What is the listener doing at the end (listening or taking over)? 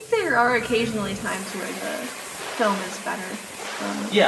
taking over